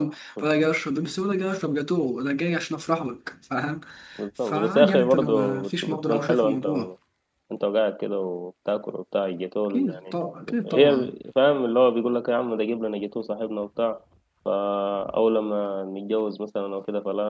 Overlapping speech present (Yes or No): Yes